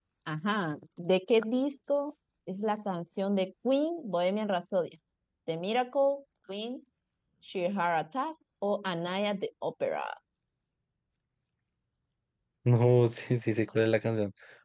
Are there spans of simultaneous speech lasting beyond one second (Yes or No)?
No